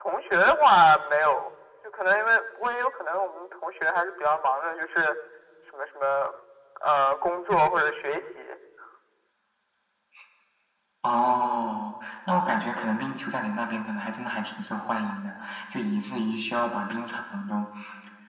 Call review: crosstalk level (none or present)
none